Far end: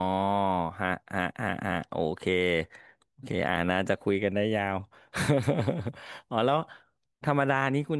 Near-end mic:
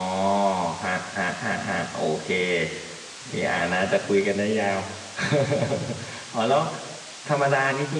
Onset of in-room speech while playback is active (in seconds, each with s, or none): none